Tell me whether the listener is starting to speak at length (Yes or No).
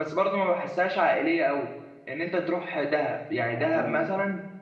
No